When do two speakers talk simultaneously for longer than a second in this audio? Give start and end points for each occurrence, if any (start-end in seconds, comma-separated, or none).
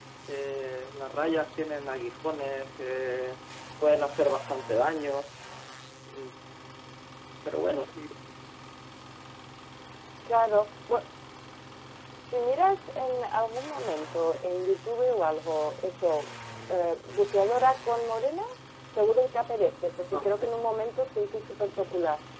none